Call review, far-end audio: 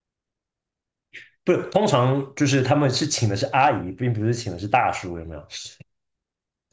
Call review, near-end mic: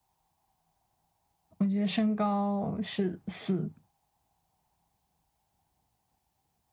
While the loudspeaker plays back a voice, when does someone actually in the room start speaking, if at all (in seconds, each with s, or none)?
1.6 s